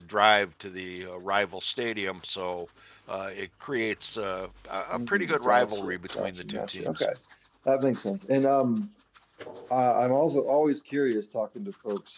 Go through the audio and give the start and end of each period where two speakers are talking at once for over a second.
4.9-7.1

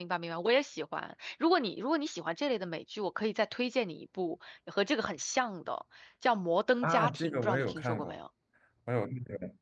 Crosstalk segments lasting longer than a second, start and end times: 6.8-8.2

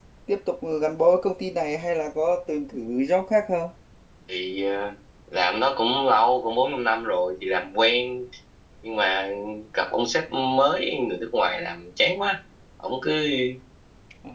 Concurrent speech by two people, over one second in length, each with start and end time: none

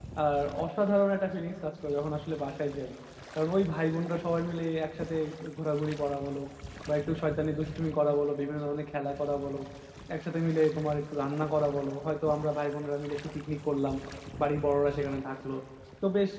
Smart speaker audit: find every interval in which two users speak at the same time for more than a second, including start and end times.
none

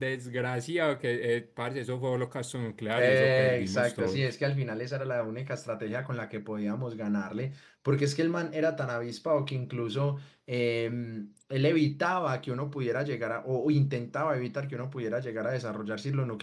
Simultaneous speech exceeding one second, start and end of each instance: 3.0-4.2

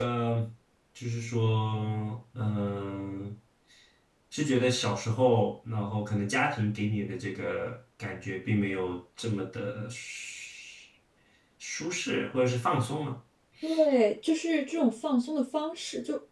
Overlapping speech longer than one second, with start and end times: none

